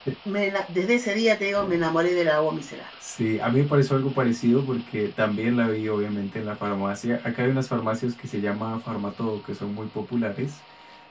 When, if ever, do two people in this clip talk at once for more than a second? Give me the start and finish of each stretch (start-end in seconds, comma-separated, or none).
none